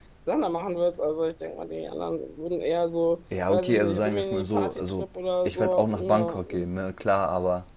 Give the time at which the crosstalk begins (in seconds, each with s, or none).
3.3 s